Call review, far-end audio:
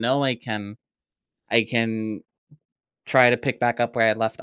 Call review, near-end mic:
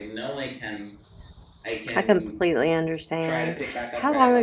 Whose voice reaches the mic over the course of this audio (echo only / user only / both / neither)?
both